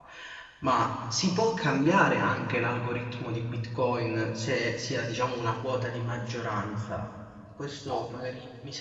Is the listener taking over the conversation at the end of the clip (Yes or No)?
No